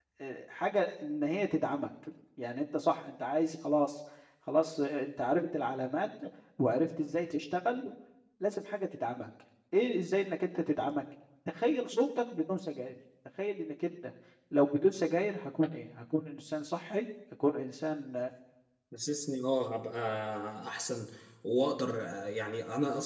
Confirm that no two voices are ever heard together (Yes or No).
Yes